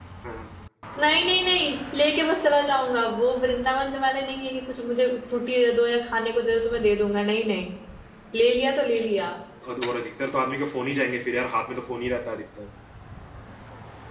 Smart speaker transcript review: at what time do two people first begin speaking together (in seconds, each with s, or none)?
none